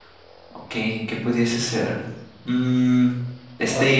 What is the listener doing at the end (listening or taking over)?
taking over